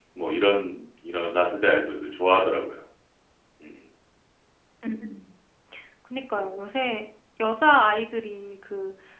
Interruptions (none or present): none